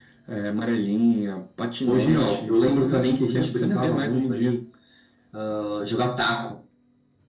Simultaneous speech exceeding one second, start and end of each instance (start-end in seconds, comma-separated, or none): 1.9-4.5